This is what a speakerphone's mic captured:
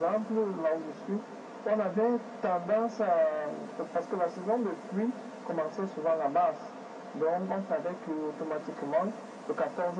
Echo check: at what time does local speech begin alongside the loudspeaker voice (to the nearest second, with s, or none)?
none